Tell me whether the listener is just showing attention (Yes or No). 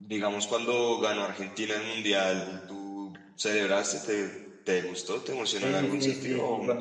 No